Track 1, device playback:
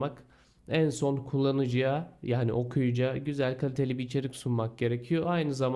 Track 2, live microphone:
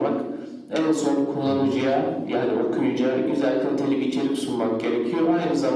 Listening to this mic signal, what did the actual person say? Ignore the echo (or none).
Hı hı.